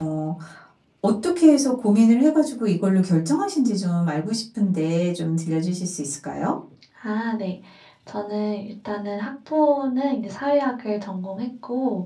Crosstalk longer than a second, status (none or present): none